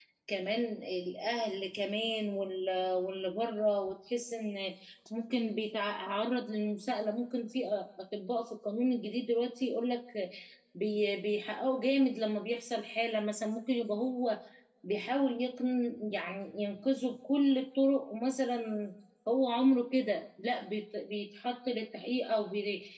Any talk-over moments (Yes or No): No